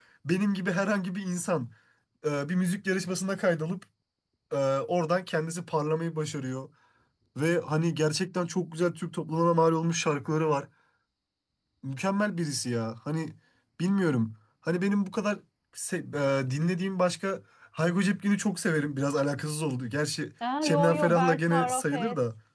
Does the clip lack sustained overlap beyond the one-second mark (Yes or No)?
No